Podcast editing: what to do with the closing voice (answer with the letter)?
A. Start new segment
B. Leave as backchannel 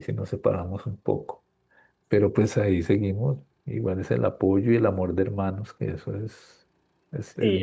A